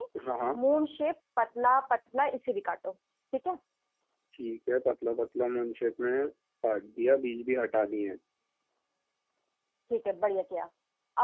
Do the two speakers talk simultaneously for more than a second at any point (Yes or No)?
No